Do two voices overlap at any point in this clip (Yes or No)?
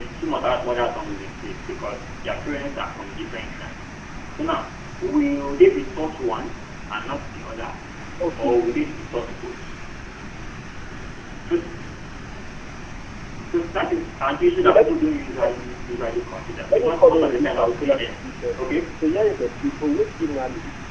Yes